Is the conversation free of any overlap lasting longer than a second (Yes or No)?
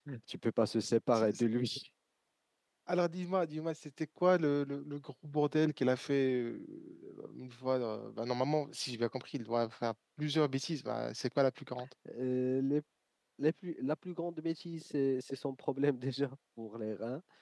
Yes